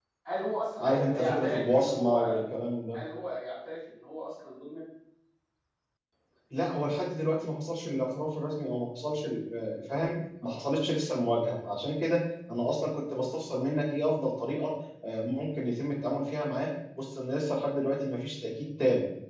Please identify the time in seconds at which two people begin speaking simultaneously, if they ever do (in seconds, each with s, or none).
0.8 s